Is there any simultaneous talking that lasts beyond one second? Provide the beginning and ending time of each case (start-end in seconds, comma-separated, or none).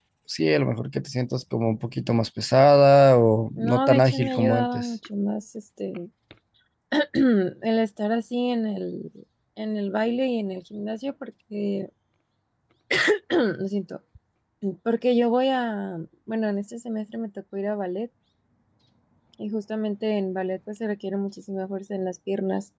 3.6-4.9